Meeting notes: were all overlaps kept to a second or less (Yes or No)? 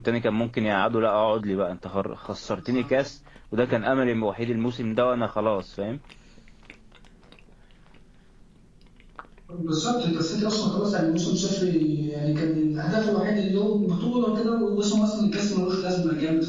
Yes